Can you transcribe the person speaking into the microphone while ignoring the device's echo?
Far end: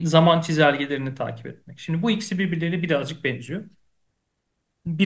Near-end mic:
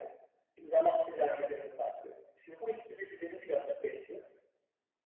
none

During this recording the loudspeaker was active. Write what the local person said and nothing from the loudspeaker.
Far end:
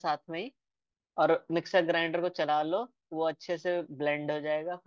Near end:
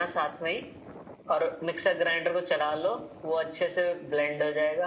none

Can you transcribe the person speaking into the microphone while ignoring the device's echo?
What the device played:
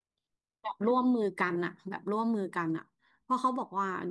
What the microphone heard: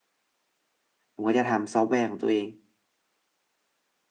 ผมก็จะทำซอฟต์แวร์ของตัวเอง

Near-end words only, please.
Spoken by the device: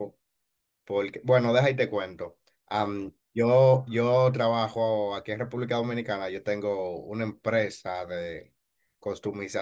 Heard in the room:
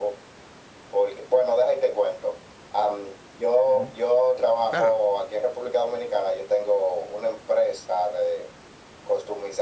Ujú, Claro.

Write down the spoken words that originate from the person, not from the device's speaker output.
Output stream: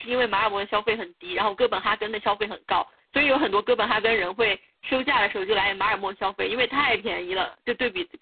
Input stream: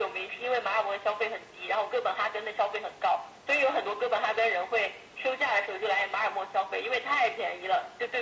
none

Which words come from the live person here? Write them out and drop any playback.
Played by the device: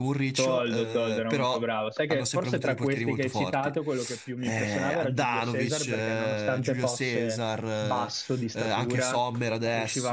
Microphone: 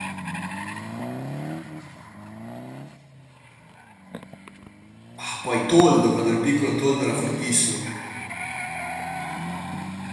ah, poi Toldo, quando ero piccolo Toldo era fortissimo.

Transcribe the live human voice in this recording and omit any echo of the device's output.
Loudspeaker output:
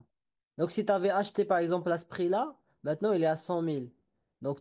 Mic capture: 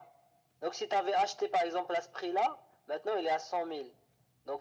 none

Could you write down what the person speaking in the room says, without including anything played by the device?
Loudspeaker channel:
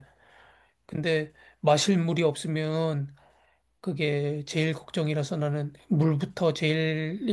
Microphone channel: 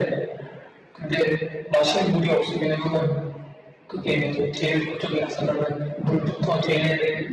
뭐라 그러지?

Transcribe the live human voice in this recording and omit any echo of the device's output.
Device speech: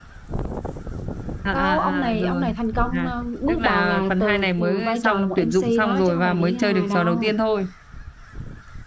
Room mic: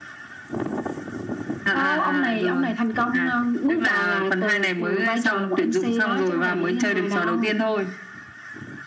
none

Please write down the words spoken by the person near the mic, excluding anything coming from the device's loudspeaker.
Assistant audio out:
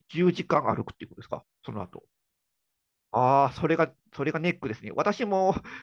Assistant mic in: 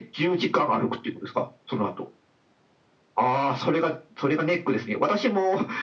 none

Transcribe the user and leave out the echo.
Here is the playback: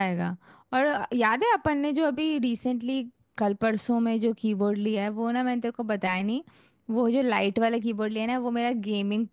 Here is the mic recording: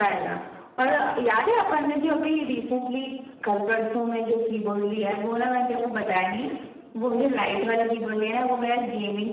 none

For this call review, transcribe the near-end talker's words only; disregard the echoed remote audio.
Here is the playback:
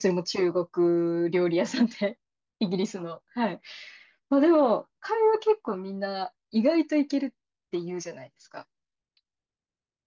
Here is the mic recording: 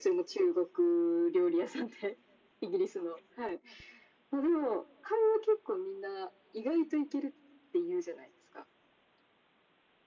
none

